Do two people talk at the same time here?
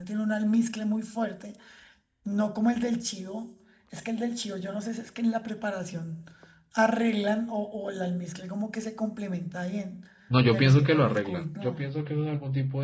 Yes, from 10.5 s

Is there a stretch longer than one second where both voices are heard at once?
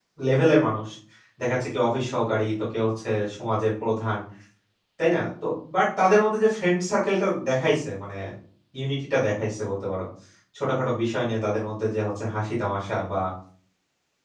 No

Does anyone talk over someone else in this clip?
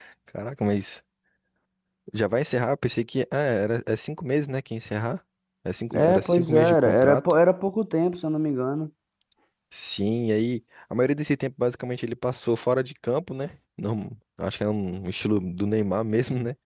Yes, from 5.9 s

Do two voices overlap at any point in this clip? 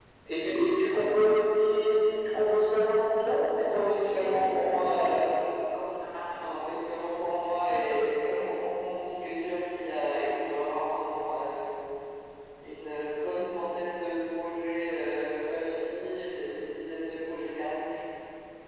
Yes, from 3.6 s

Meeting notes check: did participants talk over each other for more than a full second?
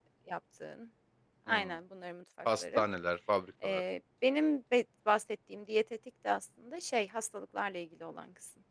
No

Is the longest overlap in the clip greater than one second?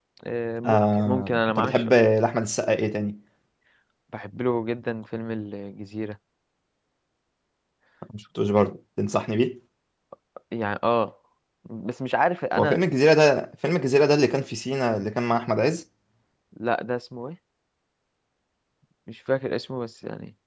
Yes, from 0.6 s

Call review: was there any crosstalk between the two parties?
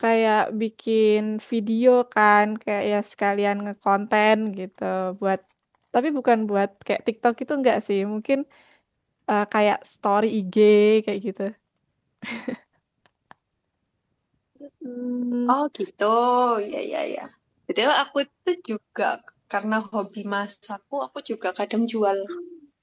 No

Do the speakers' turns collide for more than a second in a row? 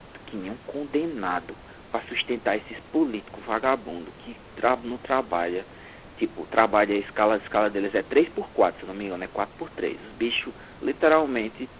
No

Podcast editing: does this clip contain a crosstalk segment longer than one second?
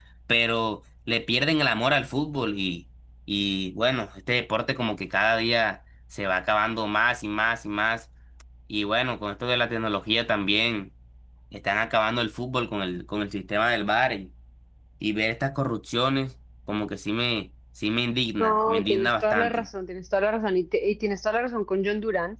Yes, from 18.4 s

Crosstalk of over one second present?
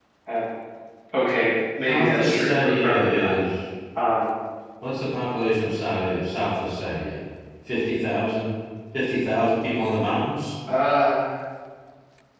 Yes, from 1.9 s

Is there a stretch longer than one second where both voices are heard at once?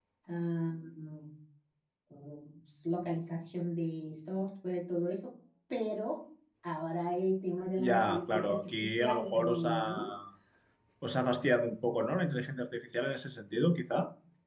Yes, from 7.8 s

